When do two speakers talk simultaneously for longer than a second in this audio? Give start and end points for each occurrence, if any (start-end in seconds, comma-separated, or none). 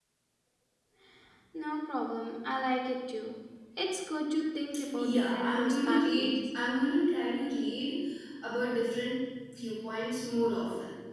5.0-6.3